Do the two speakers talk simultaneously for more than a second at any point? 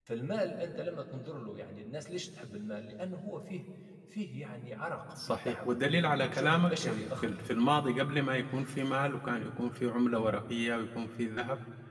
Yes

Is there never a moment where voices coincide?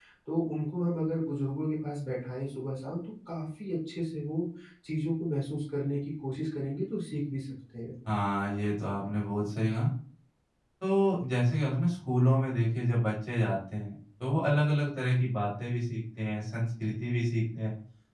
Yes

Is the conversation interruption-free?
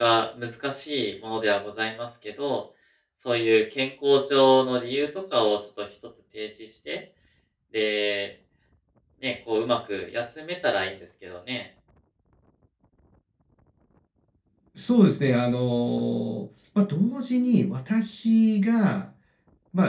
Yes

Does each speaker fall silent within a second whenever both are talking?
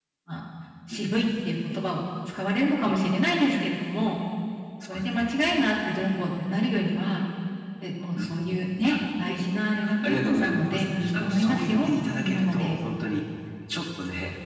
No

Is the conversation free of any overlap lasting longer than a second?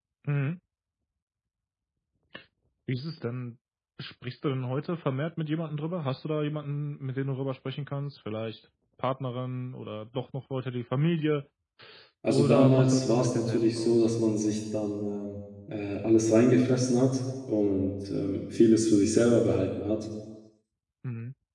No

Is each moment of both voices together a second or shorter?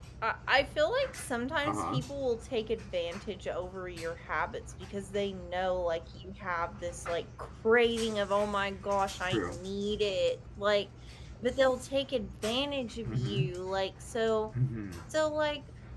Yes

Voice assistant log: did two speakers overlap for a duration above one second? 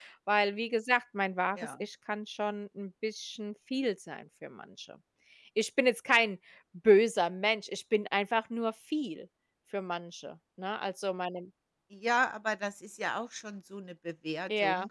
No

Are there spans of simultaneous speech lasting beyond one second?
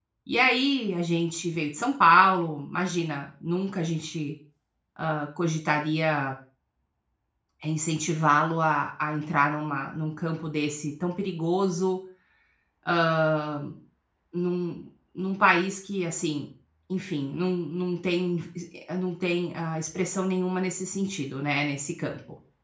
No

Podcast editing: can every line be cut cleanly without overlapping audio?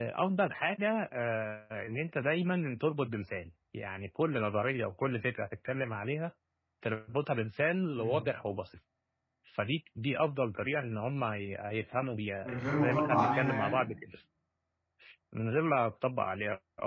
No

